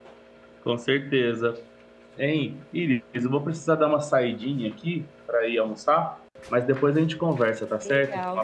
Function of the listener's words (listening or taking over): taking over